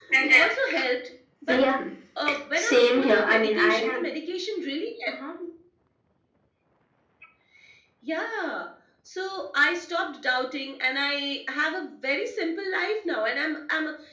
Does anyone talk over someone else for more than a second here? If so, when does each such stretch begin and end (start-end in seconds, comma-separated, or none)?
2.5-4.0